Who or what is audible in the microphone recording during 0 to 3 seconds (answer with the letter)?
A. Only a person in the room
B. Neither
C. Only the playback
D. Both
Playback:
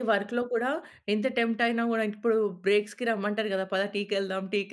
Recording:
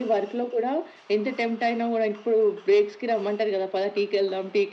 C